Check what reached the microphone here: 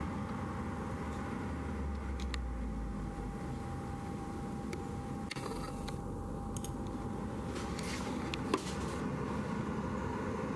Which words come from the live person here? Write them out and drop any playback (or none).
none